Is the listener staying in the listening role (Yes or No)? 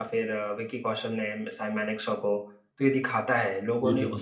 Yes